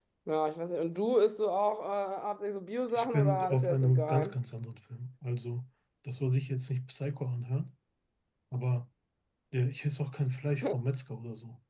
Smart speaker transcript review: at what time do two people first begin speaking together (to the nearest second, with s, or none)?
3 s